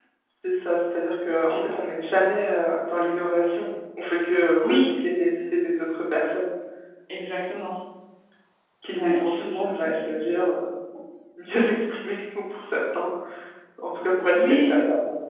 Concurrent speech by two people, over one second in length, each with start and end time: 8.9-10.1

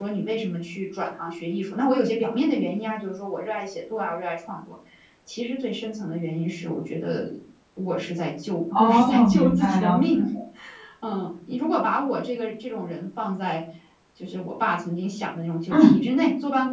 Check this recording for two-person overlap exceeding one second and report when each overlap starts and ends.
8.7-10.0

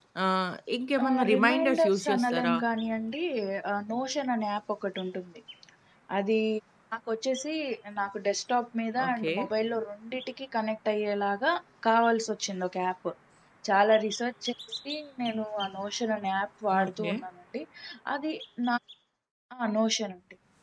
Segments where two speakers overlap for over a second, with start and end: 1.0-2.5

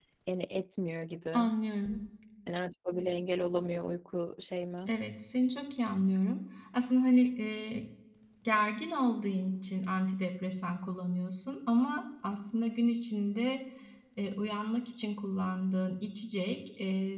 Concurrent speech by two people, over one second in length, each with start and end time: none

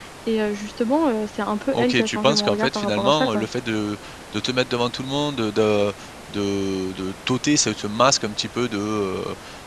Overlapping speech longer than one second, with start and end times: 1.7-3.5

